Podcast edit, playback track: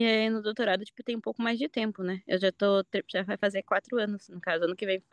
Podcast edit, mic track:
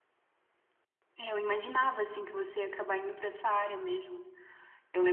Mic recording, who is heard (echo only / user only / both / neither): user only